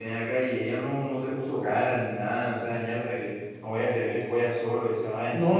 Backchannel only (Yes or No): No